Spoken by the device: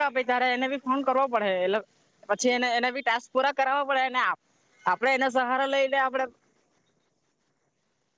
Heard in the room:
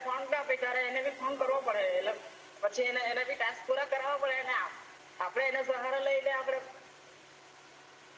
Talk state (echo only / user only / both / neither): echo only